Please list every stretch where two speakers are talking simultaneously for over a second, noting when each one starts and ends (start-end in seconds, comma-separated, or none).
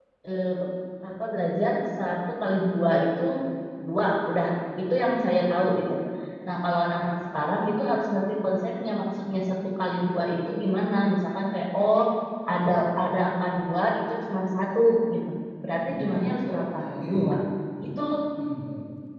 15.8-17.2